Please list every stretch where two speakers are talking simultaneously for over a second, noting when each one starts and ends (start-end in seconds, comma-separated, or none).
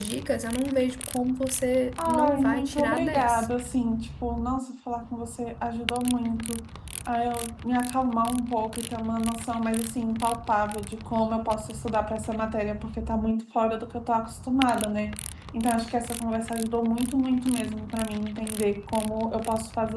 2.0-3.5